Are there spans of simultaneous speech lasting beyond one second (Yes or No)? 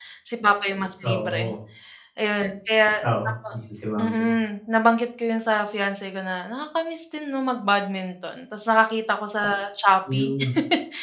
No